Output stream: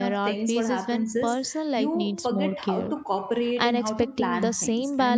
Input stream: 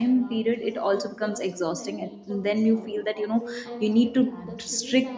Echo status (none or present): present